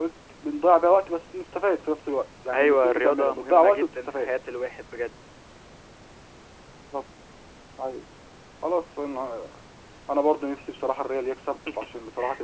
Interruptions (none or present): present